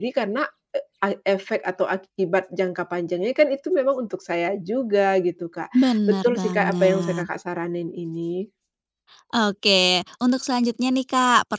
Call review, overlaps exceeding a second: present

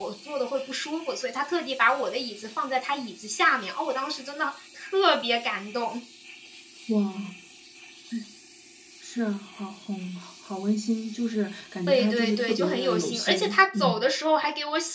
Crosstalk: present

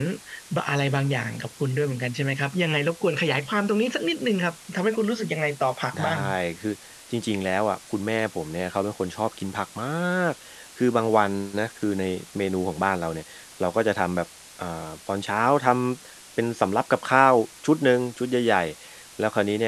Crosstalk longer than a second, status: none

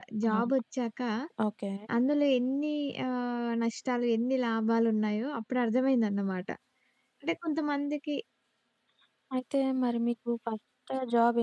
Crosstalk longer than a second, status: none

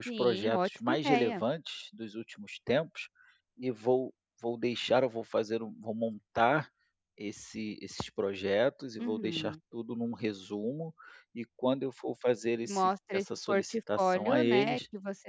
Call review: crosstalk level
present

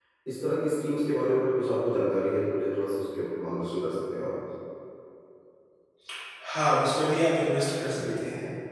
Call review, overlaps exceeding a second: none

